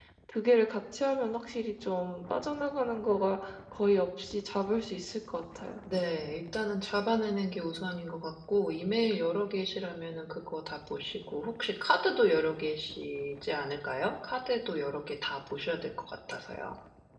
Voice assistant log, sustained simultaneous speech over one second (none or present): none